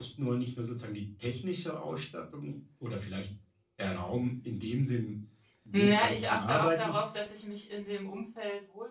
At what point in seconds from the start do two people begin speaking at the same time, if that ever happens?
5.7 s

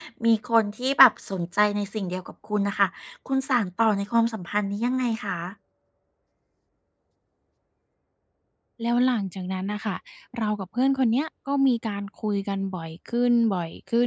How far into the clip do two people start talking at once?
none

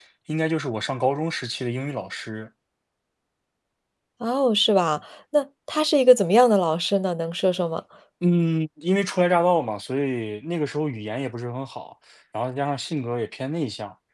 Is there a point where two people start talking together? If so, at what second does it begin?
none

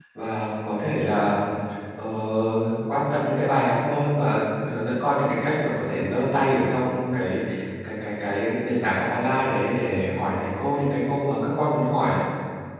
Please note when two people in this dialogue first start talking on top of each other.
none

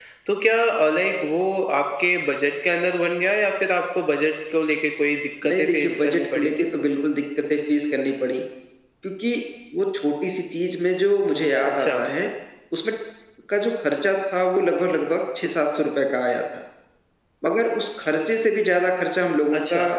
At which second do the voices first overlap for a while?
5.4 s

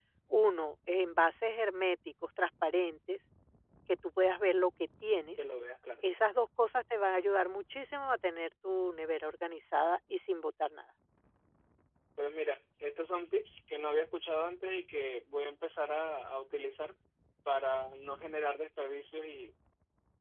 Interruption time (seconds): none

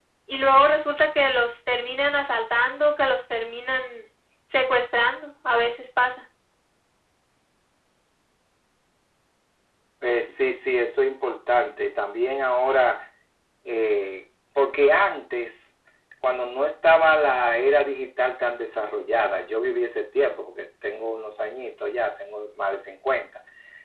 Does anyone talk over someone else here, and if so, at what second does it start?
none

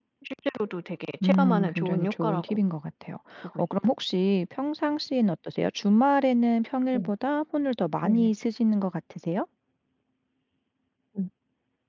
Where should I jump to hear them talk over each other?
1.2 s

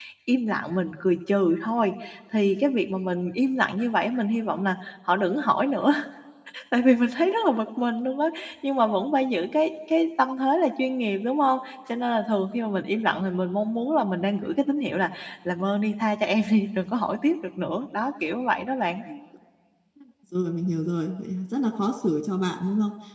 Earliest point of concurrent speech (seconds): none

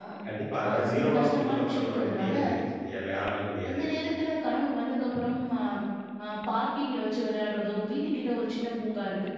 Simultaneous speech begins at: 0.7 s

